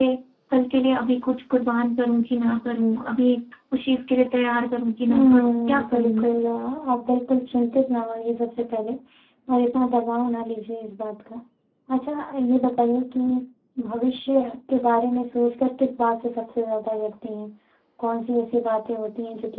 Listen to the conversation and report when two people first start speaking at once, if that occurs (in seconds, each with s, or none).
5.1 s